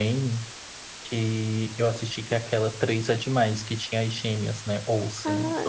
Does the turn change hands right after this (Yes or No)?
Yes